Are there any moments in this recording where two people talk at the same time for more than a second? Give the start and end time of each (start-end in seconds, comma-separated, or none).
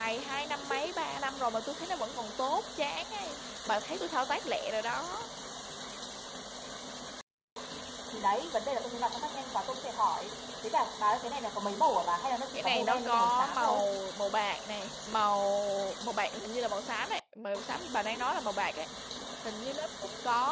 12.5-13.8